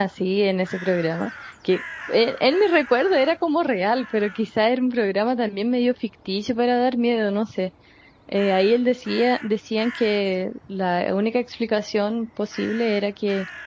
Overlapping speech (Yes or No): No